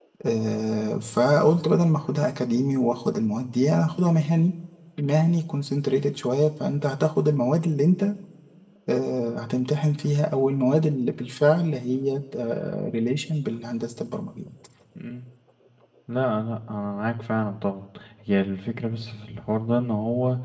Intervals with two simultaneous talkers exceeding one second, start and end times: none

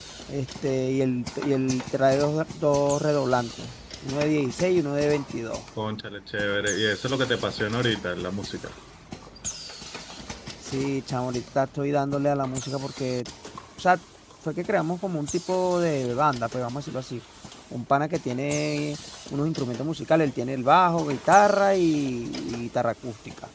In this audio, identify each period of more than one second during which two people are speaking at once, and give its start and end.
none

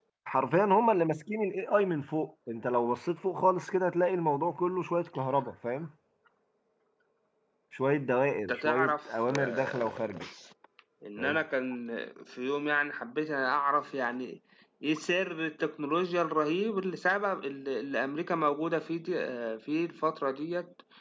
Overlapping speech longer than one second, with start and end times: 8.5-10.1

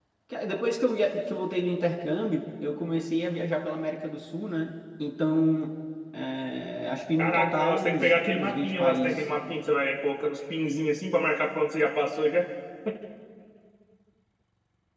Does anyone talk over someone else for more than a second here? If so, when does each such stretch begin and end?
7.2-9.2

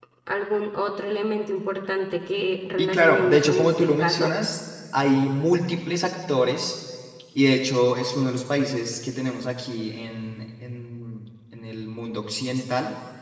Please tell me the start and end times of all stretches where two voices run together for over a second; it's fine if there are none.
2.8-4.3

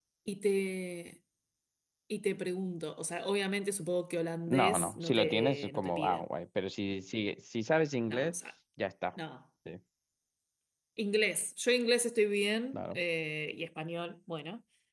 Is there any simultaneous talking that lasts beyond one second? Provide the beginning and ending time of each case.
4.5-6.2

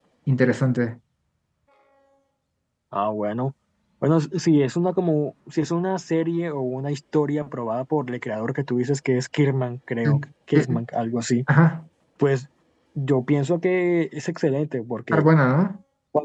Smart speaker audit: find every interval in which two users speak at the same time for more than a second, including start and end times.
none

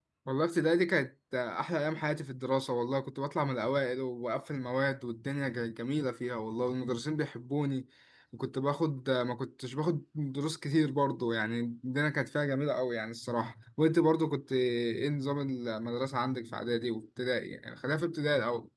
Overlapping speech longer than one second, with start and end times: none

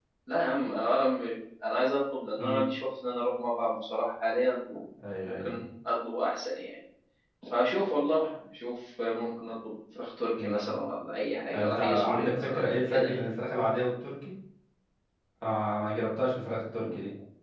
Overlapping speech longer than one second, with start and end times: 11.5-13.3

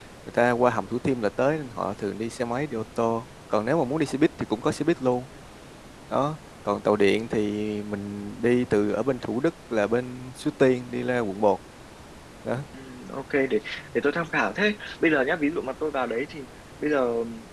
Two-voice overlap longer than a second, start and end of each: none

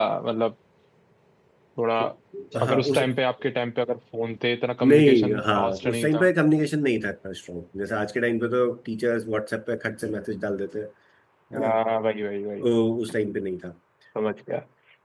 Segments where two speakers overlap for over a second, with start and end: 4.9-6.3

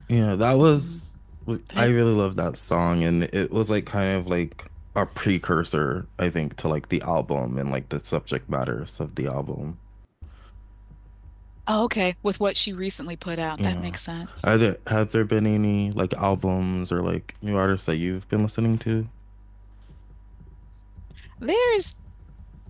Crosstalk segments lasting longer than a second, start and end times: none

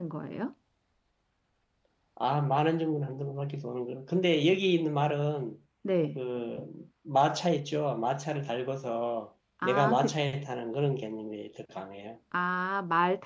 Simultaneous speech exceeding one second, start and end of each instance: none

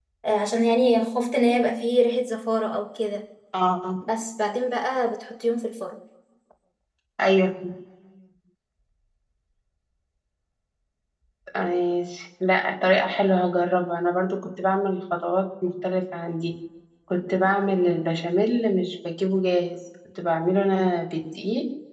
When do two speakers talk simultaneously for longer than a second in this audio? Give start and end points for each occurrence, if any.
none

